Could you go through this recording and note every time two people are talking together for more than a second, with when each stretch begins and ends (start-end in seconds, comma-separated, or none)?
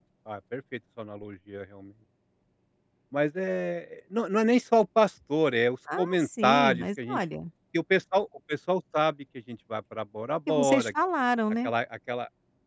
6.0-7.2